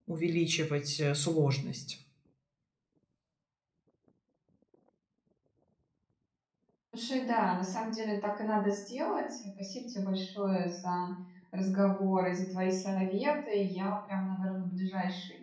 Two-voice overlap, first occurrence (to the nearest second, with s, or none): none